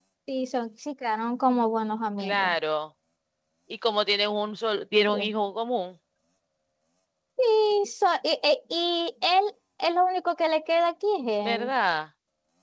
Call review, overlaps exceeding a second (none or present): none